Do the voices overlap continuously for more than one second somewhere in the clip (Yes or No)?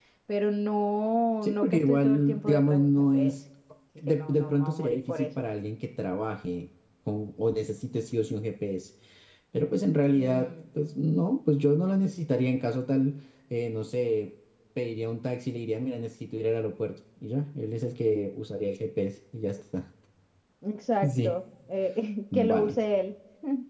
Yes